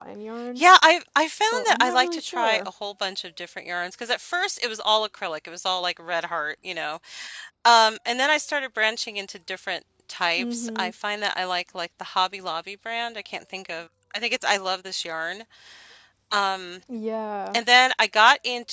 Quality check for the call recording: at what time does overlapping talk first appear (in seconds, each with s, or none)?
1.5 s